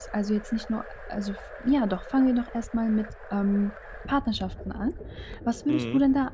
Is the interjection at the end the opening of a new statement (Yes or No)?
No